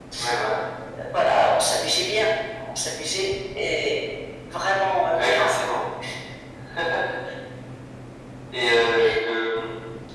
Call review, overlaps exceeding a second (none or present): none